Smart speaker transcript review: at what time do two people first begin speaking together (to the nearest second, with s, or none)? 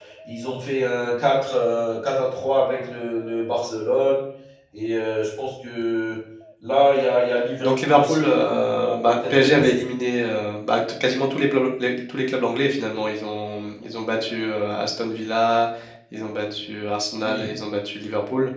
8 s